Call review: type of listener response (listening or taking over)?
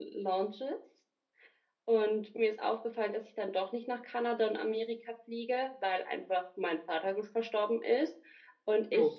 listening